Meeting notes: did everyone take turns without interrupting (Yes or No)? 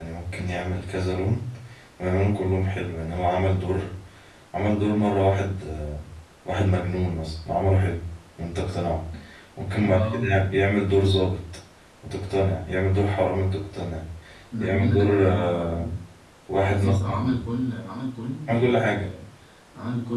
No